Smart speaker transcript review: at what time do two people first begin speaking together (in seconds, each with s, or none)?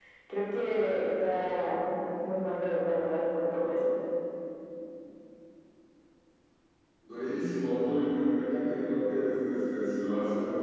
none